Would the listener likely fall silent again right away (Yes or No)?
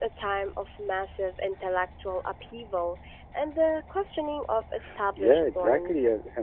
No